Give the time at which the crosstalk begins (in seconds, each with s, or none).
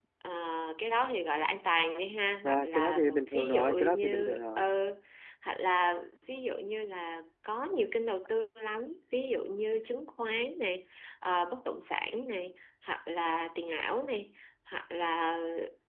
2.4 s